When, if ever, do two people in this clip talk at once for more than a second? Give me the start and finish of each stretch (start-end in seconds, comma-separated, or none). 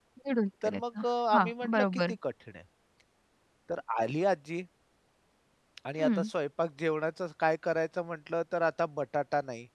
0.7-2.0